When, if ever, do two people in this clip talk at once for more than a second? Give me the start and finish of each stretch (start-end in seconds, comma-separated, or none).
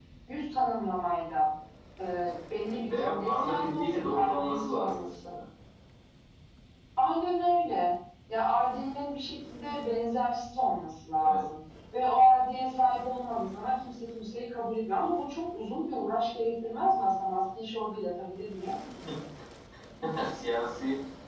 2.9-5.3